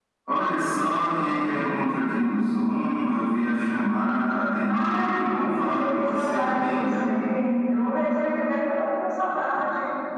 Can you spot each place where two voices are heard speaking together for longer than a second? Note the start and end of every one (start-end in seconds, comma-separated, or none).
4.7-7.1